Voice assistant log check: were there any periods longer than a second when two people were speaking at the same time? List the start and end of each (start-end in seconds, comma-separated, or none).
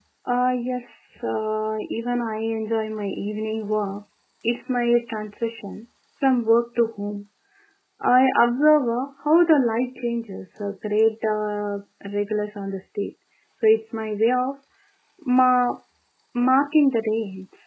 none